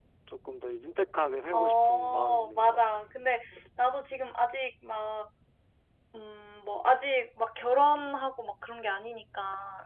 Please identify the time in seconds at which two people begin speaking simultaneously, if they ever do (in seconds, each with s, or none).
1.5 s